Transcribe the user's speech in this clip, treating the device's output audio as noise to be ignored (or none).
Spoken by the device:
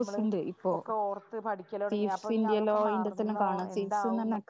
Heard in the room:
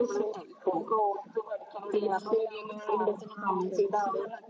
none